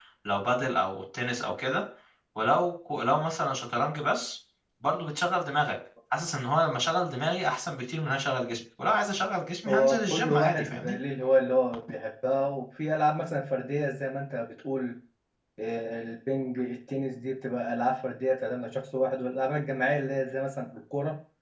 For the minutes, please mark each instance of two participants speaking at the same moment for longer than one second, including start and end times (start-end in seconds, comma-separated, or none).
9.7-10.9